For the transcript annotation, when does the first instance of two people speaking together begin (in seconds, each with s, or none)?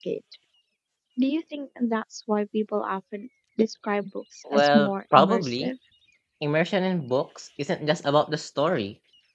4.5 s